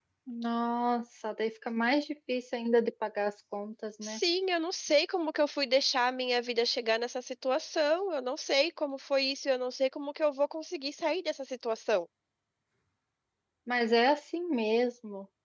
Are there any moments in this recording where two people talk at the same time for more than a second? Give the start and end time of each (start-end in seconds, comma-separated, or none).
none